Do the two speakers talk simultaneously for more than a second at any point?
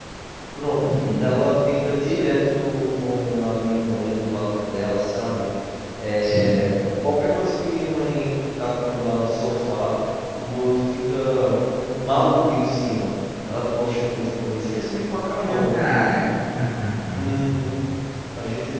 No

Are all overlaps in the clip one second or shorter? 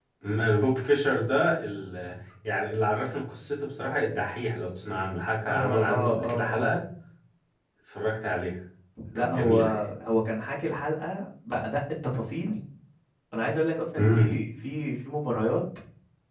No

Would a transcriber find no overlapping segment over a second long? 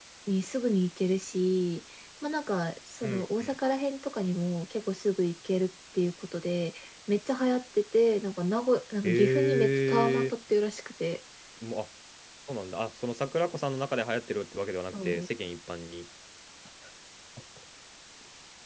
No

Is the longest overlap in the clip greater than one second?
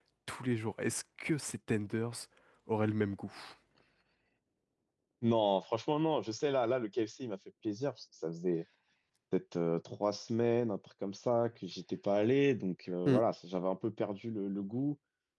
No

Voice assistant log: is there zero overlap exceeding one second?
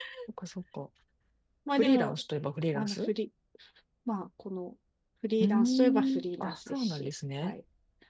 No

